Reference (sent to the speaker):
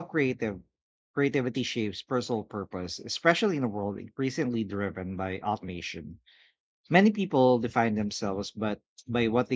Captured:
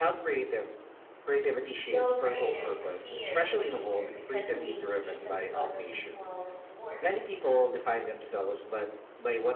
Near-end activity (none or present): present